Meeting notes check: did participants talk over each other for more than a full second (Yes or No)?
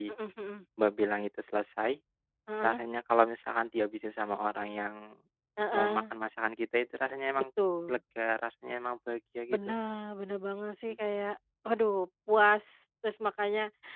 No